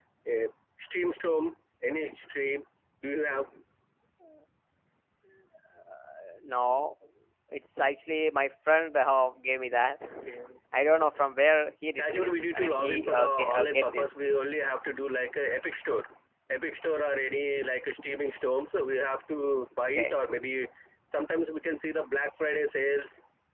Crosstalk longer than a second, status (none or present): present